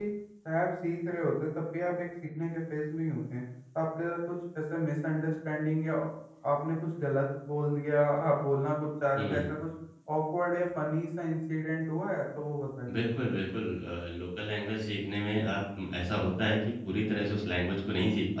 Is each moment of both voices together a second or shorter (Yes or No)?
Yes